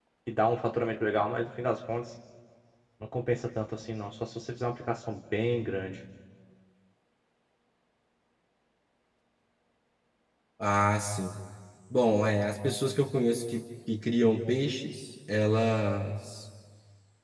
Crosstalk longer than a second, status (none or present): none